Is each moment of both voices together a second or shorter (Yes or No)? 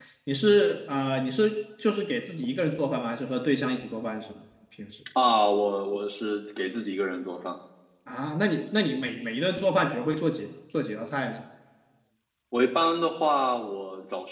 Yes